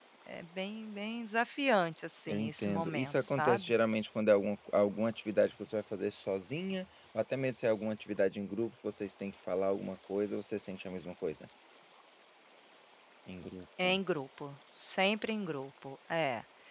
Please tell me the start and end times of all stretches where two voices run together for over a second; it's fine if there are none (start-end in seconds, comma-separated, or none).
2.3-3.7